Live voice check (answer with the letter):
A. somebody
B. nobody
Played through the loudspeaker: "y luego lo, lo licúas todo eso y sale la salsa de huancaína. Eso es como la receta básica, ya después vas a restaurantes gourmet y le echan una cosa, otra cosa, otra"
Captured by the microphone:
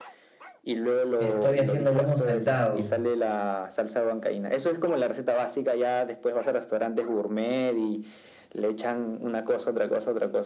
A